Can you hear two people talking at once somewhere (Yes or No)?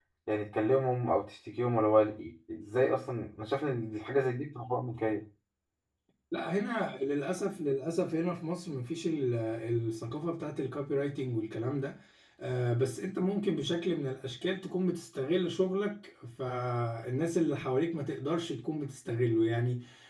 No